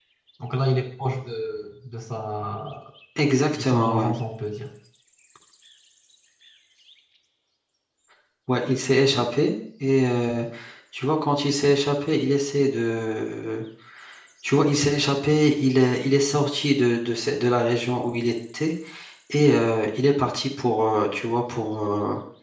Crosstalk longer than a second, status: none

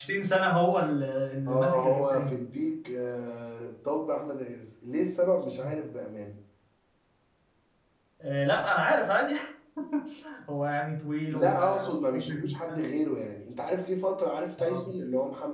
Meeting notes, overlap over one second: present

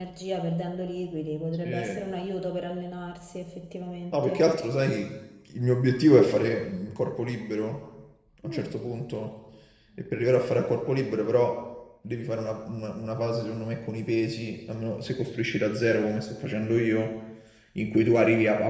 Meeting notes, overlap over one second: none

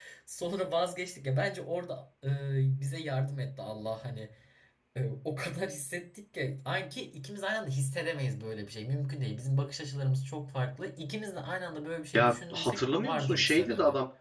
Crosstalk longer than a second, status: present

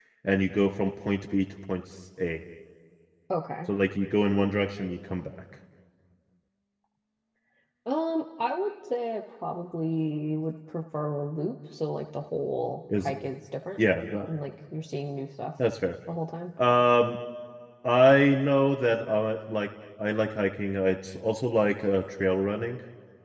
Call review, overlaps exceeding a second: none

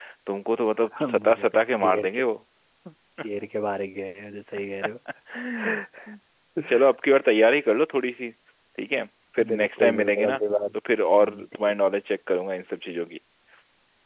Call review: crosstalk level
present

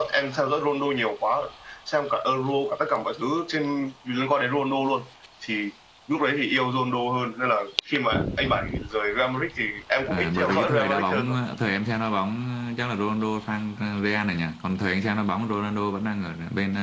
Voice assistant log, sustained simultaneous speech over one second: present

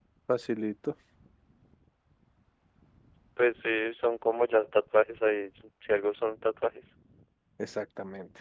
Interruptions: none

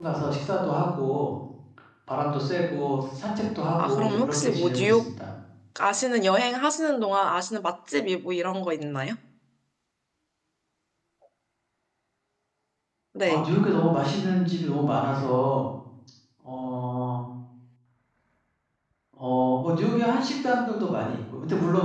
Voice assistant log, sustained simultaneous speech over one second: present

